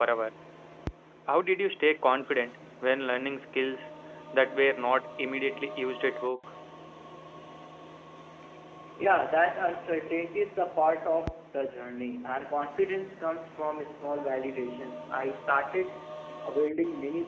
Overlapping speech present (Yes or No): No